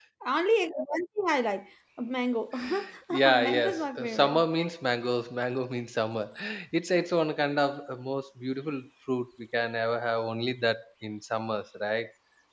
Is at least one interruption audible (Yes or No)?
Yes